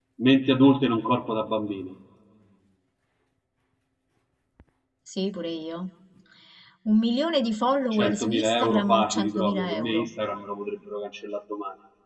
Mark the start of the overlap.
7.9 s

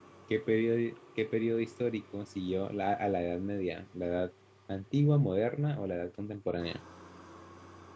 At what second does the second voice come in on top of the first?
none

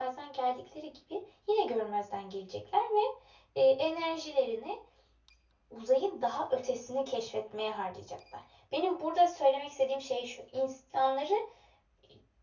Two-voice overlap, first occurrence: none

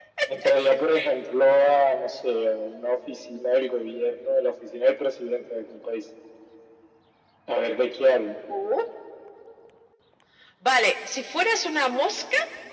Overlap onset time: none

